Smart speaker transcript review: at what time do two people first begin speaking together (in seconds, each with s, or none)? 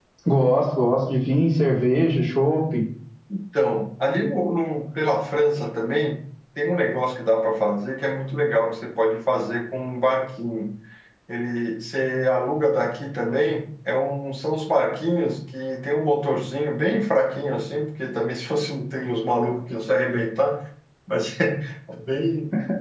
none